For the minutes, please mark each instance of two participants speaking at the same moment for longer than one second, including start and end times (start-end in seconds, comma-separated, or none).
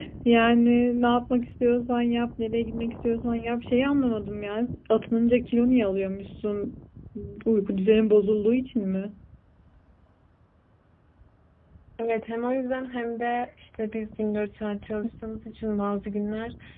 none